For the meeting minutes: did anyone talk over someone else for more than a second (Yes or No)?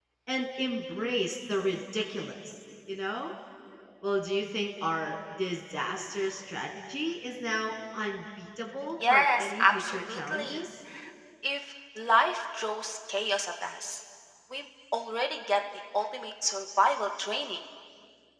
Yes